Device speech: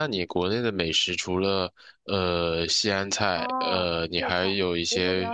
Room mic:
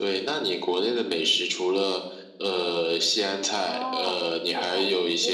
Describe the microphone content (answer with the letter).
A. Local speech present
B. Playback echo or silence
B